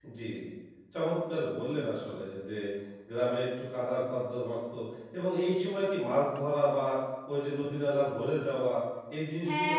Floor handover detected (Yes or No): Yes